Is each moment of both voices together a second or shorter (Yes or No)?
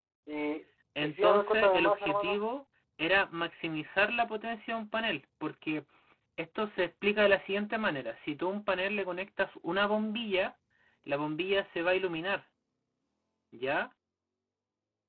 No